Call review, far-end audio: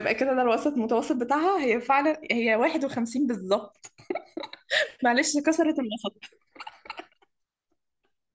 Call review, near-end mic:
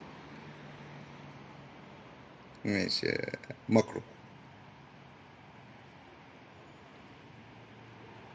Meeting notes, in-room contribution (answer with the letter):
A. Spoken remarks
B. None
A